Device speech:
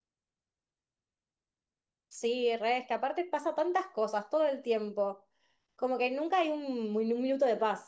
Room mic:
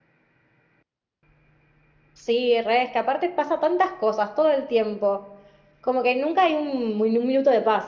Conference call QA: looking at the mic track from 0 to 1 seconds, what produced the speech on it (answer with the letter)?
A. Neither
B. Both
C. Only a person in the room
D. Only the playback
A